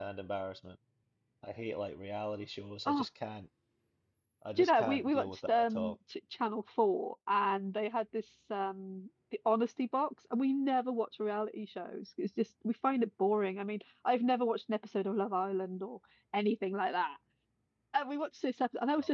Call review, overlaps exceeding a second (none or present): present